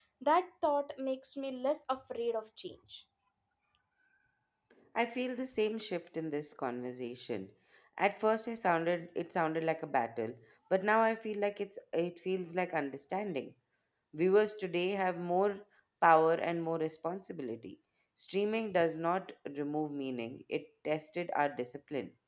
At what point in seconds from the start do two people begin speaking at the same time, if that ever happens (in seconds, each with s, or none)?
none